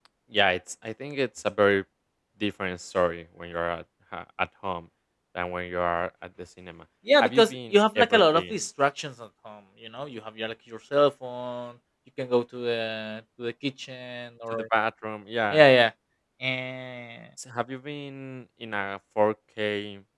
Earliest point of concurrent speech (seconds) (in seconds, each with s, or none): 7.1 s